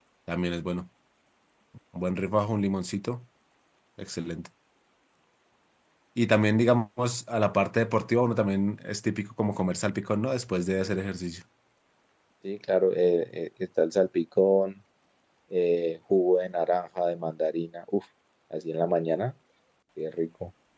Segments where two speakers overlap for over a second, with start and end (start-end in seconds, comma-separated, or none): none